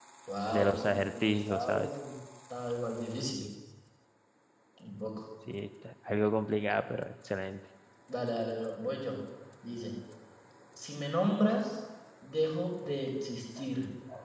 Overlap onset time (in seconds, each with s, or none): 0.5 s